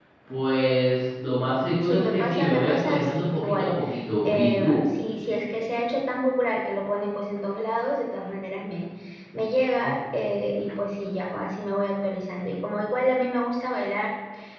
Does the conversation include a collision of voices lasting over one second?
Yes, from 1.8 s

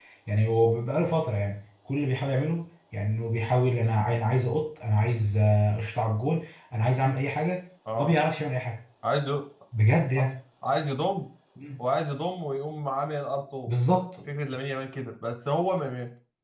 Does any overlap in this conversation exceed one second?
No

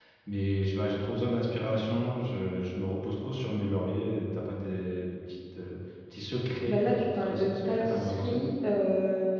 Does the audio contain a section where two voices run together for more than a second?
Yes, from 6.7 s

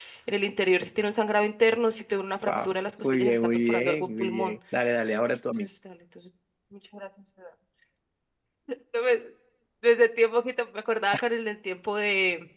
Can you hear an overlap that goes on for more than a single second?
Yes, from 2.5 s

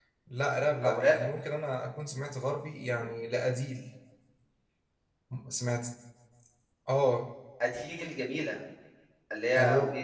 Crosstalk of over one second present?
No

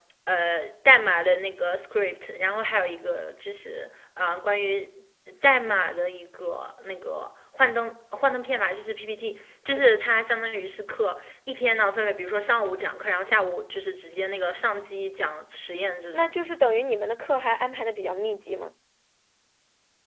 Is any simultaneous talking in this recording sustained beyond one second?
No

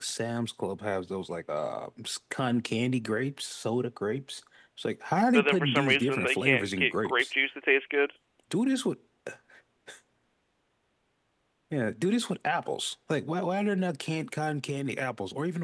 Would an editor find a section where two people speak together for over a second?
Yes, from 5.3 s

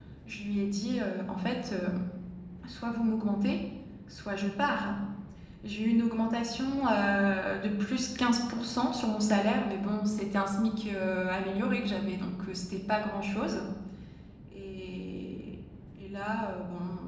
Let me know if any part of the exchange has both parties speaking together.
No

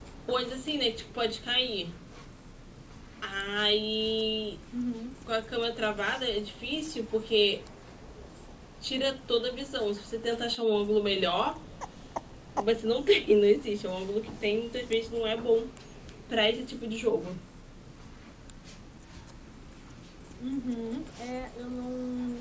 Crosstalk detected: No

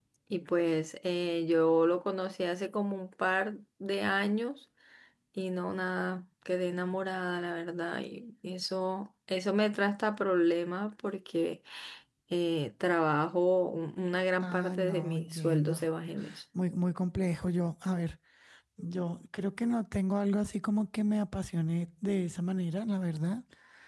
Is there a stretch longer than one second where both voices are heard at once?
Yes, from 14.4 s

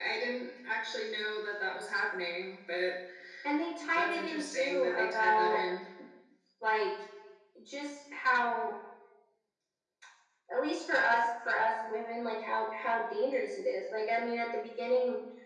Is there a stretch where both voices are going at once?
Yes, from 4.0 s

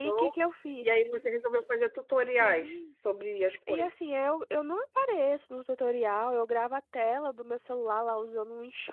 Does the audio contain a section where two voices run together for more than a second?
No

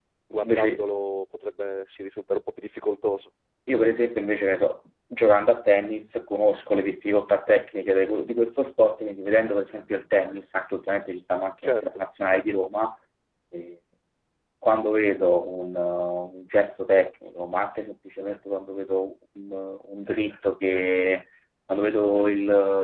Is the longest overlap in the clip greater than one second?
No

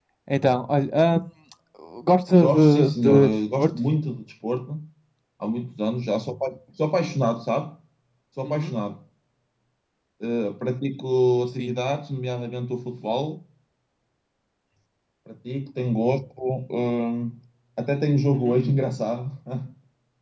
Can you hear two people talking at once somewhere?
Yes, from 2.3 s

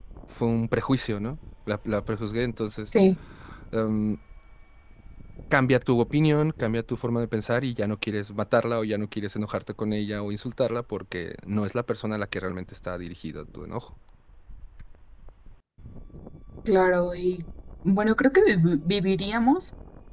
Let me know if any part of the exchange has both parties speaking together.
No

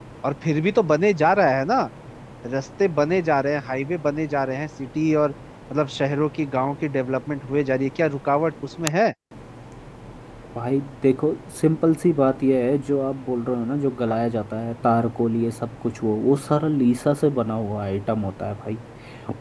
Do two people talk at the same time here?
No

